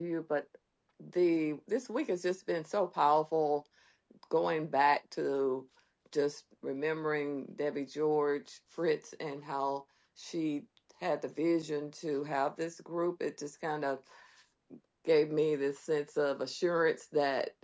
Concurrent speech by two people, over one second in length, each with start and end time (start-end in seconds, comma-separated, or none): none